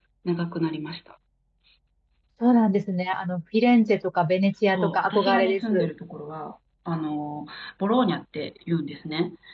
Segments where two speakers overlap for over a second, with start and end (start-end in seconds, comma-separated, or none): 4.7-5.9